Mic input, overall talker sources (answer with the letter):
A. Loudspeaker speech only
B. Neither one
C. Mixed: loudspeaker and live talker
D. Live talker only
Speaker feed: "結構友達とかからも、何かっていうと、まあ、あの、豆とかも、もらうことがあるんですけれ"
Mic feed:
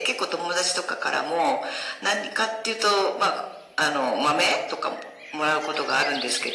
A